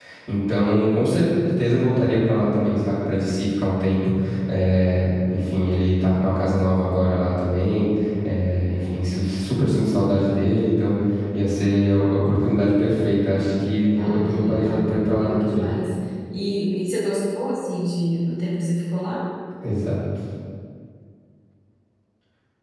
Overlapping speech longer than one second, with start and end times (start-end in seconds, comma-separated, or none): 14.0-15.7